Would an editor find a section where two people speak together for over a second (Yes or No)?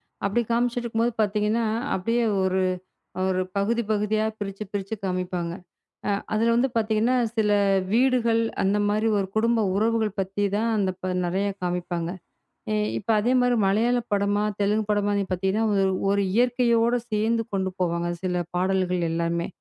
No